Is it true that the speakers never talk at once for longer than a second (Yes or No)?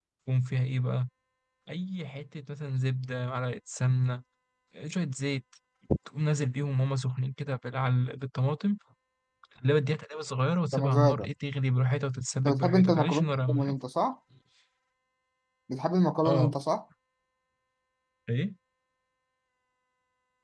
No